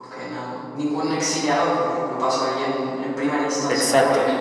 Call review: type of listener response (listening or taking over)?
listening